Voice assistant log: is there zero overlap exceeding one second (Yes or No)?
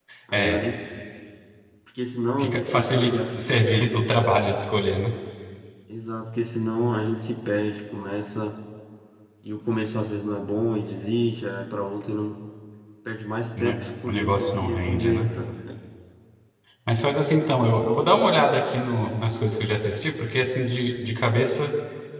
No